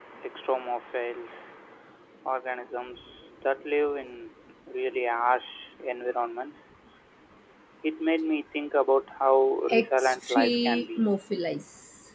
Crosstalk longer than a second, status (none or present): present